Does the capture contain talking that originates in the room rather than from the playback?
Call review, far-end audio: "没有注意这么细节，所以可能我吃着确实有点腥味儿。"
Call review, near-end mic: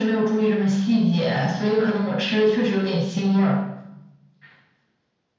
No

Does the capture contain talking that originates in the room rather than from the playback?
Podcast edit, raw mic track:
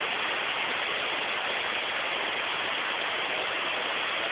No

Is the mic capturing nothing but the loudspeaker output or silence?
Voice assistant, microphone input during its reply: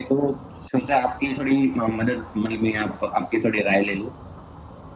Yes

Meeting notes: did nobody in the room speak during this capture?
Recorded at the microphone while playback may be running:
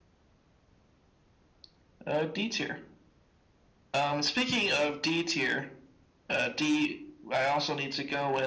Yes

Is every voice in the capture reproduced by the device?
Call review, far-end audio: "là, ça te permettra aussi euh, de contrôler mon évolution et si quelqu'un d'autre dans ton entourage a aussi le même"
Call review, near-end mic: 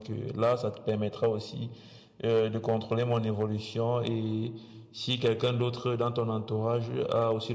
Yes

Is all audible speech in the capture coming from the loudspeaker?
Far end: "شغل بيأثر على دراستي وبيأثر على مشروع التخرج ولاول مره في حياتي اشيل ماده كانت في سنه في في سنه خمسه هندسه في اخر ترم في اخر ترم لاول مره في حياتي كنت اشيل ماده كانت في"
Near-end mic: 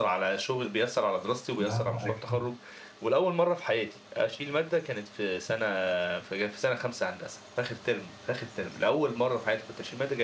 No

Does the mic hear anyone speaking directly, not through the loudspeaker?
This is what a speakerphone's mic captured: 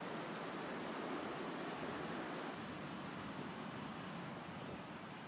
No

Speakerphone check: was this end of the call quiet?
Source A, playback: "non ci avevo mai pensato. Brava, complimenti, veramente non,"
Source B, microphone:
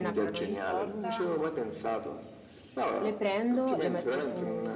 No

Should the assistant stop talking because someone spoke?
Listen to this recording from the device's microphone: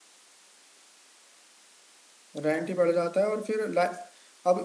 Yes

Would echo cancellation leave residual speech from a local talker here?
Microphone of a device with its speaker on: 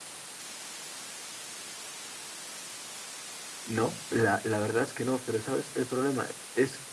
Yes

